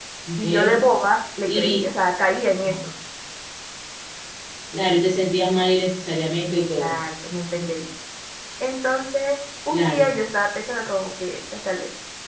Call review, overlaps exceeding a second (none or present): none